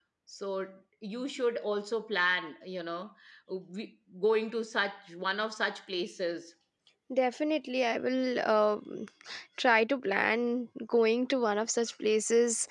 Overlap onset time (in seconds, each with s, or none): none